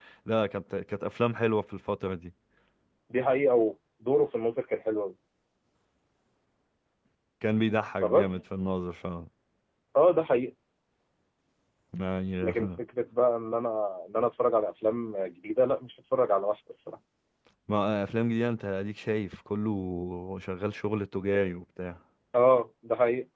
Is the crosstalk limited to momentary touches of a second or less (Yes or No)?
Yes